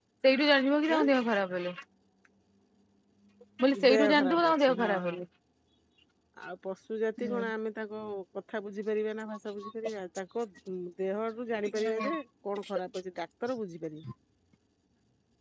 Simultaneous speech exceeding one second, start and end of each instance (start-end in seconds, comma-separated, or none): 3.9-5.2